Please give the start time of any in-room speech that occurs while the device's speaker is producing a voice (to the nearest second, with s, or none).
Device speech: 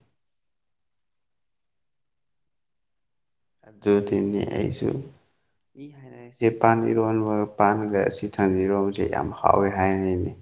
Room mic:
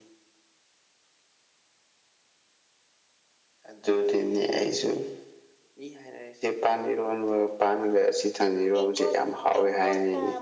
9 s